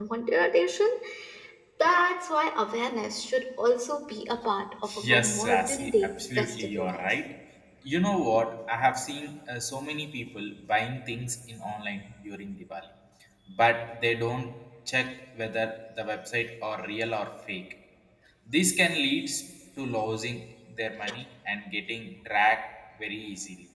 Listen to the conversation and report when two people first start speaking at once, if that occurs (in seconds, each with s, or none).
4.8 s